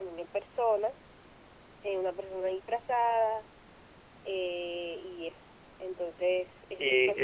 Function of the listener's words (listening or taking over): taking over